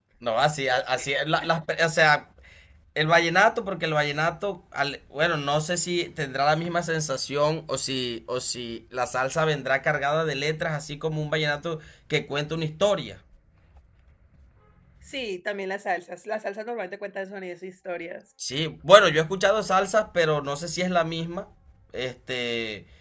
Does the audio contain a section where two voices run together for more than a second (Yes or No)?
No